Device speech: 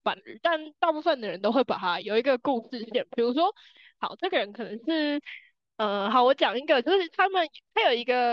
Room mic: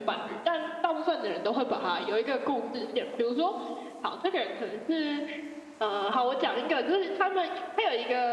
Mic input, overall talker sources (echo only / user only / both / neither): echo only